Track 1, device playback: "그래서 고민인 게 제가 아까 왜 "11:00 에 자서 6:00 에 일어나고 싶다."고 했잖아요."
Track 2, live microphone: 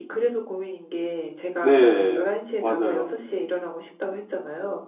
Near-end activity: present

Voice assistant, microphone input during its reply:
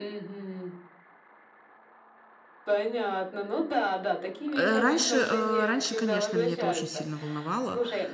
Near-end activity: present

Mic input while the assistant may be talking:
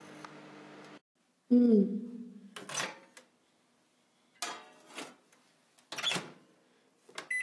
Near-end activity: present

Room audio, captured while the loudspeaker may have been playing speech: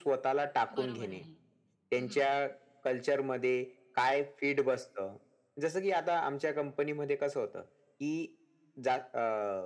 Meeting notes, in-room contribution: present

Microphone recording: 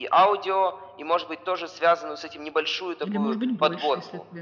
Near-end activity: present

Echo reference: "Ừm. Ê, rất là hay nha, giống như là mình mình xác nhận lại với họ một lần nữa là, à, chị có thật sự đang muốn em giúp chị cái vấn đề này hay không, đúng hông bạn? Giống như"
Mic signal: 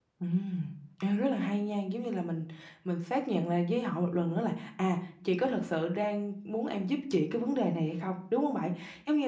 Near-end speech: none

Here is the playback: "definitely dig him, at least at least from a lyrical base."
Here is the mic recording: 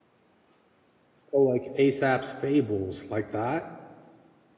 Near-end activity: present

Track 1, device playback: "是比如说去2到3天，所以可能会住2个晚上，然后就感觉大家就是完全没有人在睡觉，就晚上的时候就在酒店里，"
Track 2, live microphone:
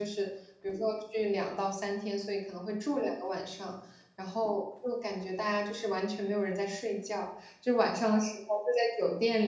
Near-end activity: none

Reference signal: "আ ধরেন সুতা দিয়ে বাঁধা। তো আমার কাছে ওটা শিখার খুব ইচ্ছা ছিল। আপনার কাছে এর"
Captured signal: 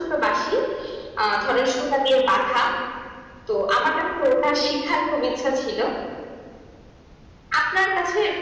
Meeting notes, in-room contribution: none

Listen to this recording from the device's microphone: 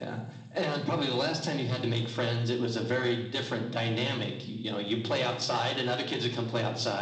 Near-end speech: none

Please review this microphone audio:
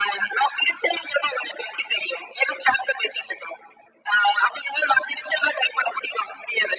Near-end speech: none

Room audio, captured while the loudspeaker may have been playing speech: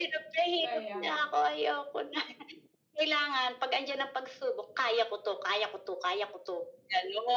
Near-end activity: present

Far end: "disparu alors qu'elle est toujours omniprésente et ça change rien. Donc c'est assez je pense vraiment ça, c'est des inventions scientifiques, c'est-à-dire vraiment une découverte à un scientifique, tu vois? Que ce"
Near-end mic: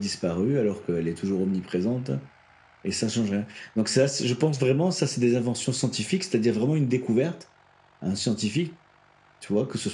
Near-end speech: none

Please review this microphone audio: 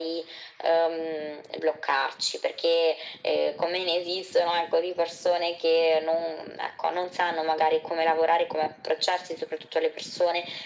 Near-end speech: none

